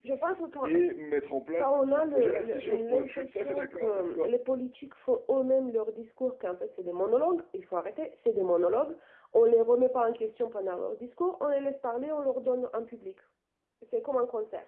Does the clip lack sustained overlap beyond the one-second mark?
No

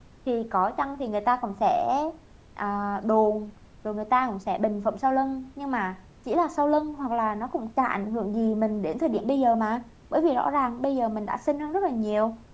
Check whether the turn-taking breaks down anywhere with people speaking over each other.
No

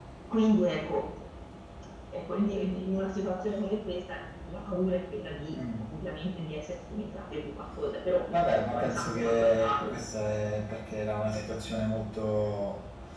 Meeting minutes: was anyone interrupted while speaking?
Yes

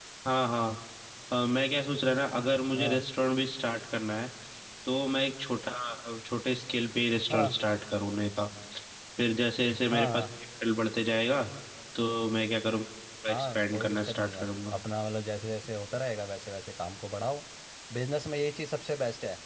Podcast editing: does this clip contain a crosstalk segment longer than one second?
Yes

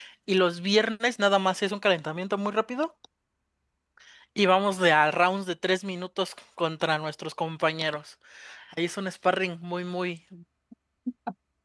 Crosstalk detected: No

